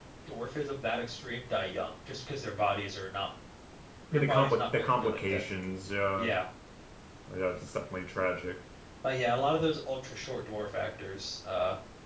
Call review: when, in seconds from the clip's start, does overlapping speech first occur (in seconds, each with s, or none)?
4.1 s